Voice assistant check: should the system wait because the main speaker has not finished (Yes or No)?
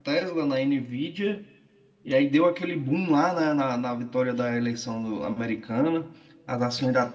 Yes